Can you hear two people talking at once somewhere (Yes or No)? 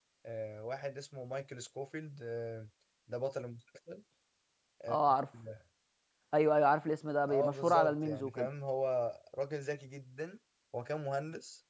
Yes